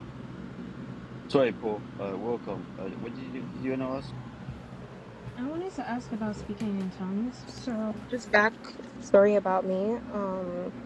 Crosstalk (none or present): none